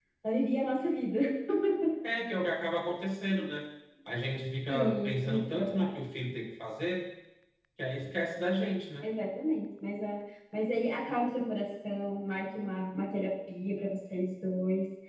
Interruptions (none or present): present